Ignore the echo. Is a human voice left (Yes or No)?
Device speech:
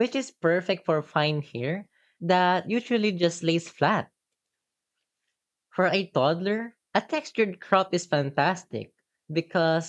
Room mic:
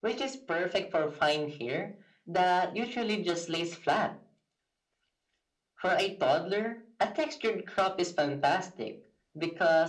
No